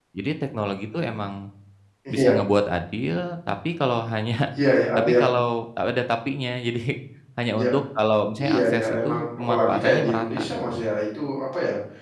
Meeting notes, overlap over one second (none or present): present